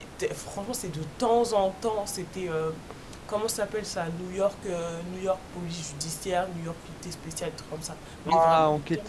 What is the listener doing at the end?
taking over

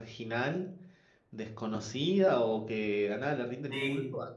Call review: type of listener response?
listening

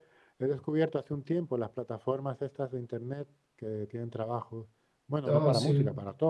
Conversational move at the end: listening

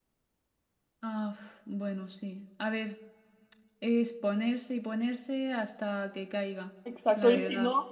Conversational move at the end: taking over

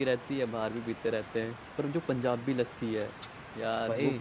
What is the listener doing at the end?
taking over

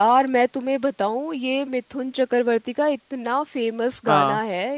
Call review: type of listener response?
listening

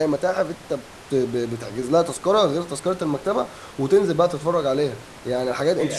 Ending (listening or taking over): taking over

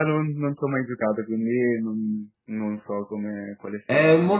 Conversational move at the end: taking over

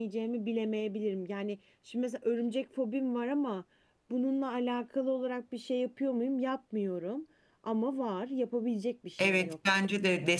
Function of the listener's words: taking over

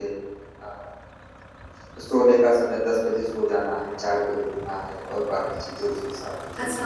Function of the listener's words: taking over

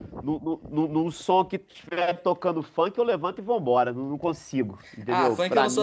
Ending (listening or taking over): taking over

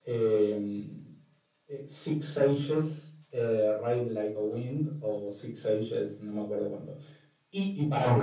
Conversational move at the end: listening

